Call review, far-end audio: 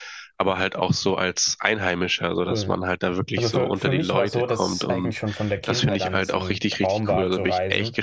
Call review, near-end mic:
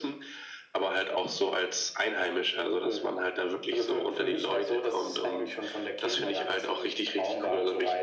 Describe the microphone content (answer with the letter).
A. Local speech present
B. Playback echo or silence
B